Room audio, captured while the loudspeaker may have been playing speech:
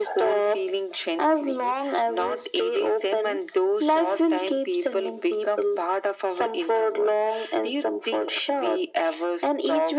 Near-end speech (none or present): none